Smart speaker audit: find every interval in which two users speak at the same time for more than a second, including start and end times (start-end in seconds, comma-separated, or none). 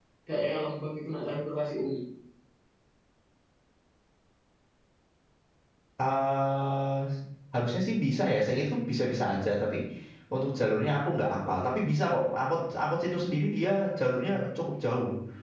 none